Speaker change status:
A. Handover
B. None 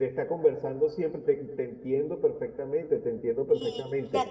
A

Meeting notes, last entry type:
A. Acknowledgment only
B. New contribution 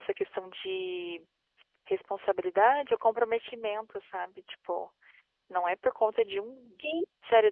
A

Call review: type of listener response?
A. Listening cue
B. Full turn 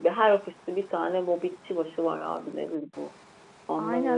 B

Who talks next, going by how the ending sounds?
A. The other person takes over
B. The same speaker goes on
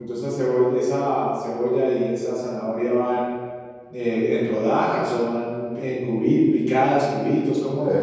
A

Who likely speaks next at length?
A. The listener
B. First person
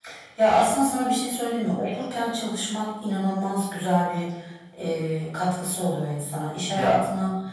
B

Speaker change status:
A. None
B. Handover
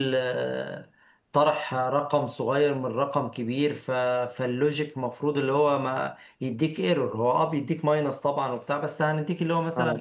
A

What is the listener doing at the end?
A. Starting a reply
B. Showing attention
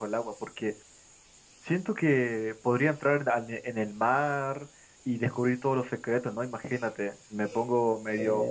B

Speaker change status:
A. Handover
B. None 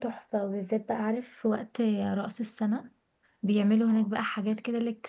B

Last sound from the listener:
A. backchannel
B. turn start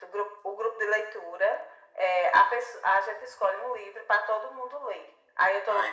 A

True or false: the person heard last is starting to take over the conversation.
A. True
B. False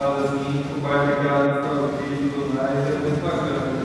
A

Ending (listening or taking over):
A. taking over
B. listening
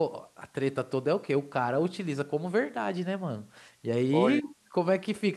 B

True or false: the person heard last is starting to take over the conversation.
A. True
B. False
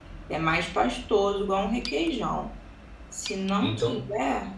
B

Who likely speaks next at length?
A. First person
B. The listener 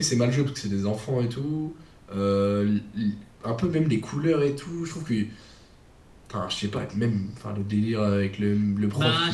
B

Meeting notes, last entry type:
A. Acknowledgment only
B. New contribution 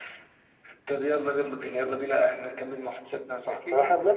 B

